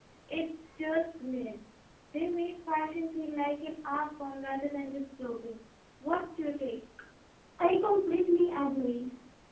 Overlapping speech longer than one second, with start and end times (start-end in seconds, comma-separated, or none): none